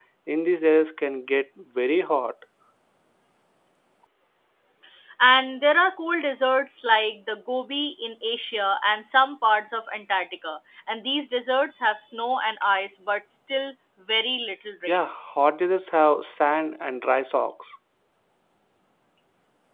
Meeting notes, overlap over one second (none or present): none